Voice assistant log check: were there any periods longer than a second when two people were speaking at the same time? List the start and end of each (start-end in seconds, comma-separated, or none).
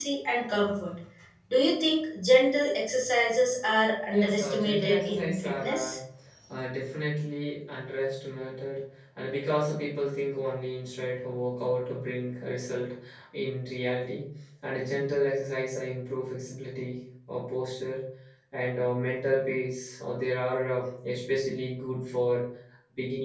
4.1-6.0